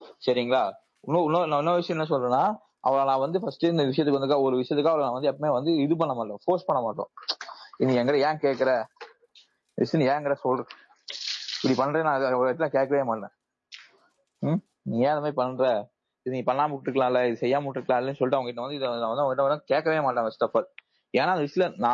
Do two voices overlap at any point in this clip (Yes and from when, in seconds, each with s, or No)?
No